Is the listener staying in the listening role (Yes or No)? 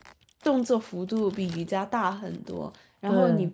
Yes